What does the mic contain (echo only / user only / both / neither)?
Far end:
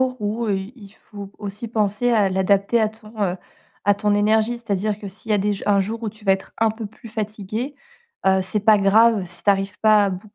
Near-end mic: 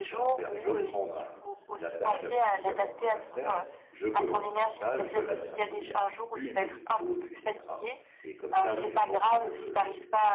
both